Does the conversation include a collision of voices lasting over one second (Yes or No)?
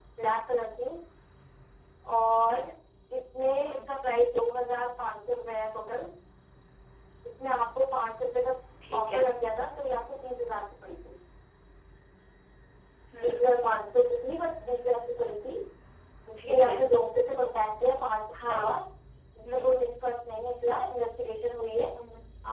No